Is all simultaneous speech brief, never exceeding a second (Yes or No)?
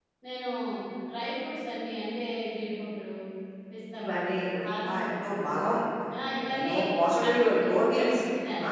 No